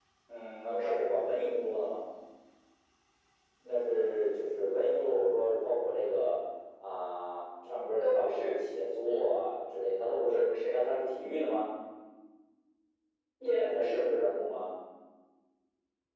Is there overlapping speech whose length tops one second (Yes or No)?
No